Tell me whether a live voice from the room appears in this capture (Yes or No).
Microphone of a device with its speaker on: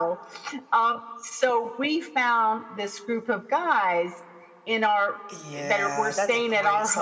Yes